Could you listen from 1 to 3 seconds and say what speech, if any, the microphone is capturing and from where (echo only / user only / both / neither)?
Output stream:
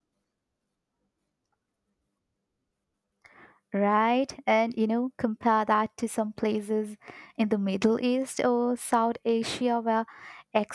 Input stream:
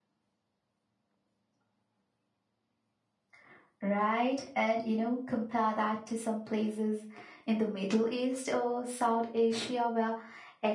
neither